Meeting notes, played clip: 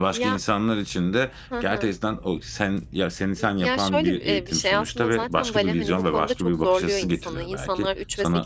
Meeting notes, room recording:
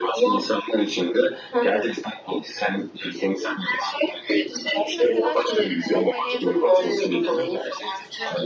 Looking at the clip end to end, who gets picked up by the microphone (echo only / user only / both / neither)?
both